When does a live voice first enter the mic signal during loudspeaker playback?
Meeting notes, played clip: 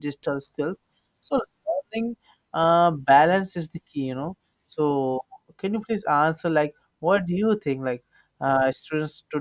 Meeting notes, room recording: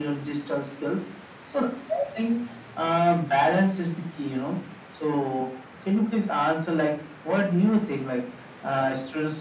none

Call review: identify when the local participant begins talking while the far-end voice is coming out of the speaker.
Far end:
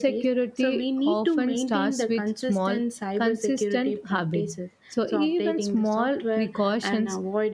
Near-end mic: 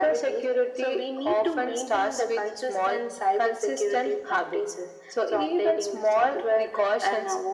none

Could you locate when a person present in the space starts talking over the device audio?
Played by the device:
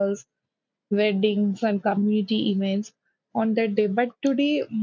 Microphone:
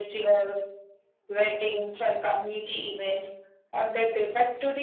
none

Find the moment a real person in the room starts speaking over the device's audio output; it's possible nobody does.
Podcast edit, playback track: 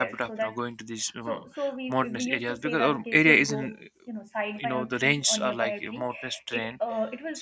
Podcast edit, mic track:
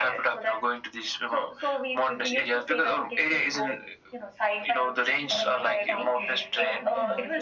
5.3 s

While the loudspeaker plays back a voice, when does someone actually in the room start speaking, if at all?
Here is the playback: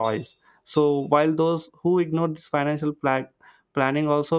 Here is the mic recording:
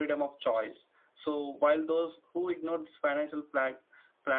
none

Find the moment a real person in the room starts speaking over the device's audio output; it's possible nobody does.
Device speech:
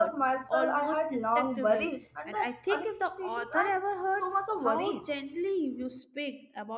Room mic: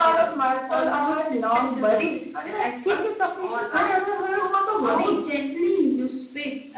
none

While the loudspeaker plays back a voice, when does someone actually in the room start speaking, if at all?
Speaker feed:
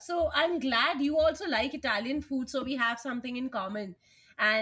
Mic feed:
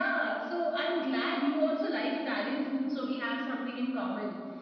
none

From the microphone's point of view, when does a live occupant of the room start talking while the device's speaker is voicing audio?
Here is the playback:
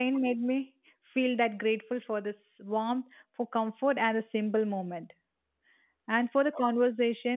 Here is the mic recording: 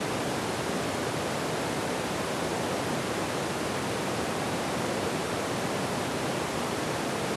none

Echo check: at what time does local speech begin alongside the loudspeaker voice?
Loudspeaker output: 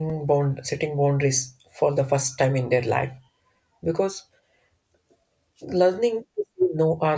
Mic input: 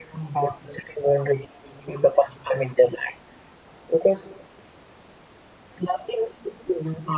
none

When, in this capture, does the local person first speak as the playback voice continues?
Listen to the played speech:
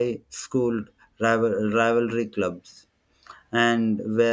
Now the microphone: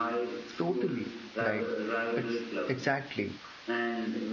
0.6 s

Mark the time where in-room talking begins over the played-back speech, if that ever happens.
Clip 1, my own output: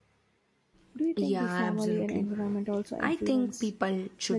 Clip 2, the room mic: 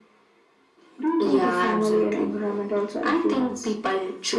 none

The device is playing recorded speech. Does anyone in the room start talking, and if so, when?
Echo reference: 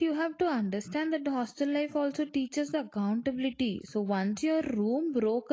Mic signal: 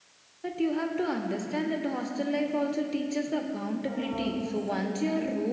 3.9 s

